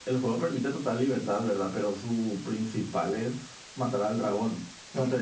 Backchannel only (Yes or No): Yes